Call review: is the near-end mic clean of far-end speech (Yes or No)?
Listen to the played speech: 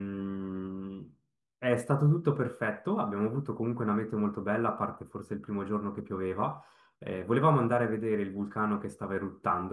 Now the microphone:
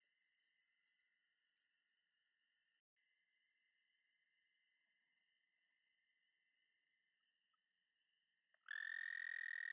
Yes